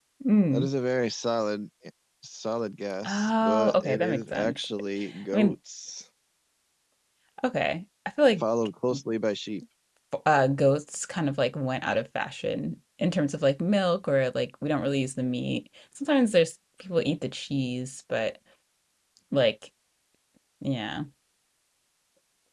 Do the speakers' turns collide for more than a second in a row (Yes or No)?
Yes